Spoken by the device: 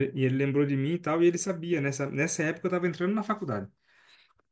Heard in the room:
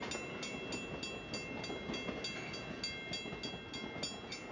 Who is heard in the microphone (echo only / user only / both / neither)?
neither